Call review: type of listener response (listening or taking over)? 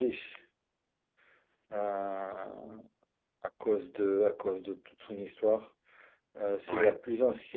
listening